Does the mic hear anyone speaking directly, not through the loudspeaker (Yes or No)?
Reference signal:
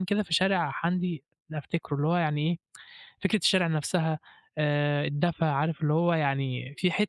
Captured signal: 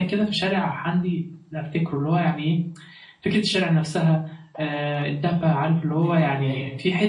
Yes